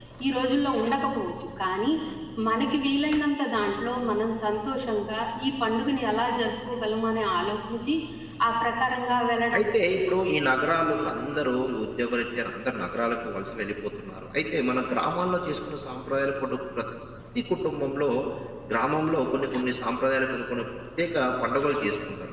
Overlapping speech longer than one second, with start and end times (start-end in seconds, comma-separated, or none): none